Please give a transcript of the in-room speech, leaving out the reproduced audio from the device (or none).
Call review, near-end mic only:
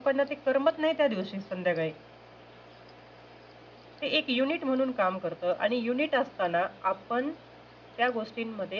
none